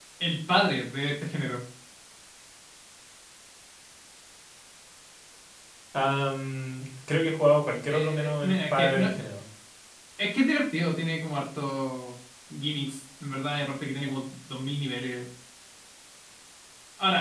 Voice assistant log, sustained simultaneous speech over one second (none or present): present